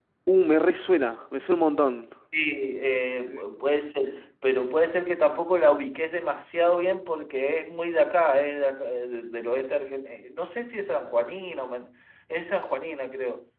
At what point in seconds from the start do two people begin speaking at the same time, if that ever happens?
none

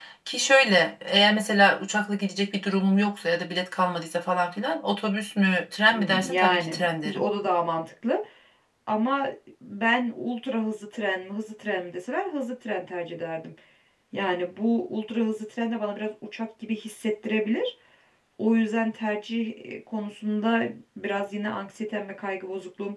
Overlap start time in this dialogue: 6 s

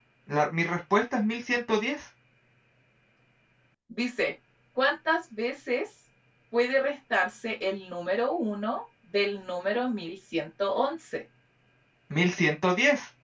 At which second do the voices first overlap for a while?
none

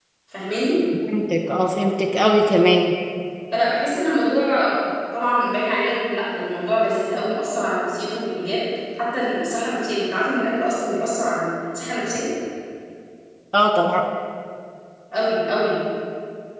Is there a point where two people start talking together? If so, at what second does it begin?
none

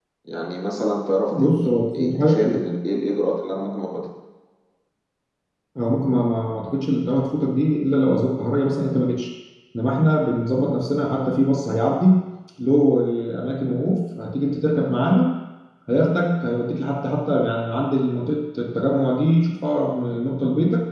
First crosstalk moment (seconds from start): 1 s

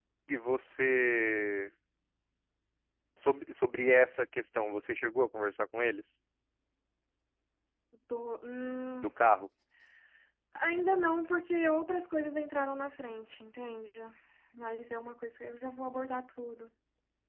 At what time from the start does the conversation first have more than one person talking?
none

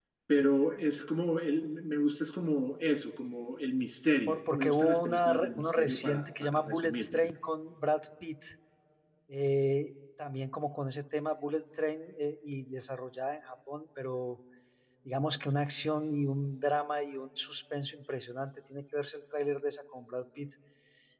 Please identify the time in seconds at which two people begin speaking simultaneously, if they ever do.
4 s

